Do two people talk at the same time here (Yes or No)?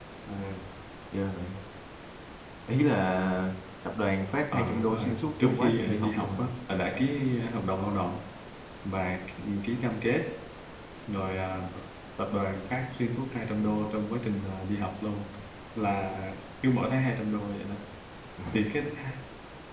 Yes